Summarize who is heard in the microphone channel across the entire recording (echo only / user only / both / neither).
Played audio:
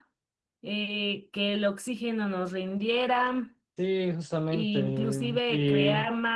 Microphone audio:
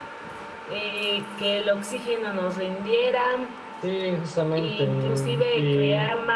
echo only